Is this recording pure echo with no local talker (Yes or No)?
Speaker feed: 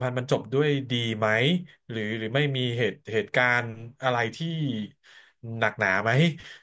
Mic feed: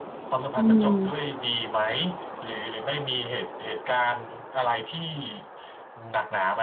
No